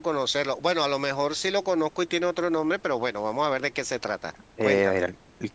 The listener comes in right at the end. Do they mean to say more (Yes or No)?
Yes